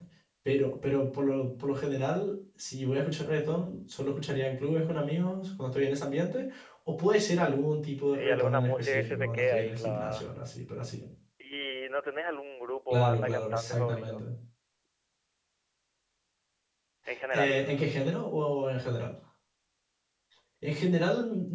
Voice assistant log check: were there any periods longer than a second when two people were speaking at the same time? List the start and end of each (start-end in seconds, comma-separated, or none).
8.1-10.3, 12.9-14.3